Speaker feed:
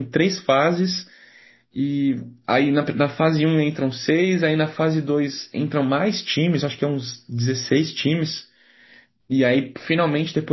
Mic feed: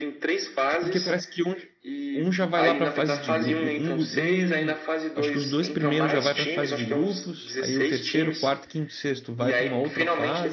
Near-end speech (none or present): present